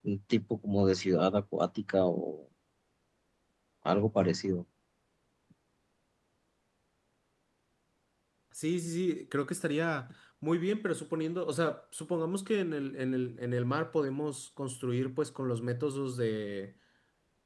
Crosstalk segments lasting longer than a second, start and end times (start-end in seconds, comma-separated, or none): none